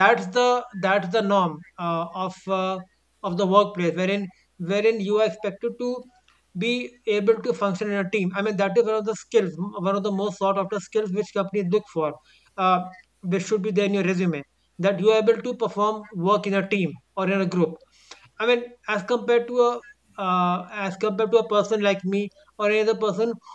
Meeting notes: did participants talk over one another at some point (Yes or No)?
No